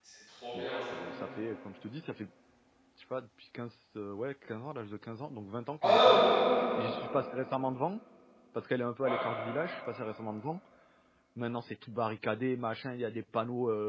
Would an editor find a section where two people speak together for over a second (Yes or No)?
No